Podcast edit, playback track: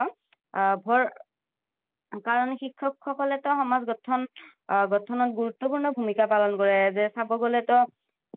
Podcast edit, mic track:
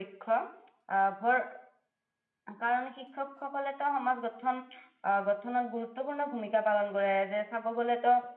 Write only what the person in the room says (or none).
none